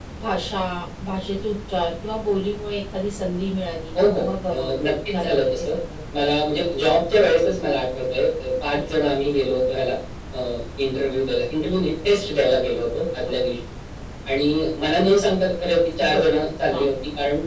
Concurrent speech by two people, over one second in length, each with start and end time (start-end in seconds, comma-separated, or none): 4.2-5.7